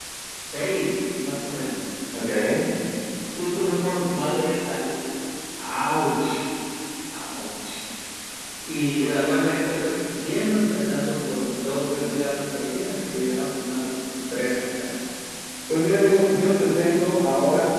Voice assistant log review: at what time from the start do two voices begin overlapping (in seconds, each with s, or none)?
none